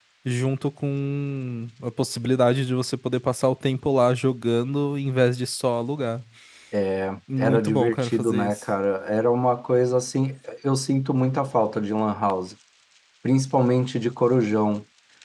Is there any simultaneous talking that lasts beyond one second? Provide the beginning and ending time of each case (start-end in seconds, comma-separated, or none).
7.4-8.6